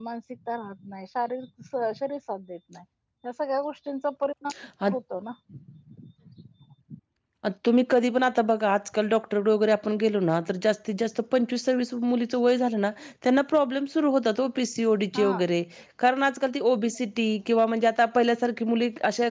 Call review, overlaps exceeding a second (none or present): none